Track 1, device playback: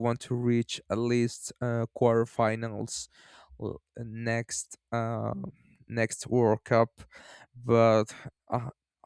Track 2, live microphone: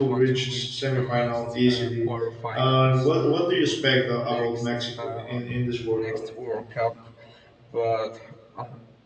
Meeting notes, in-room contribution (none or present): present